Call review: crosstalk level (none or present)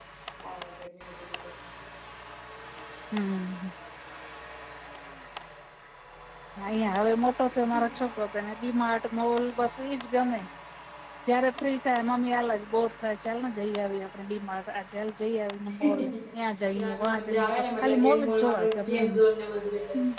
present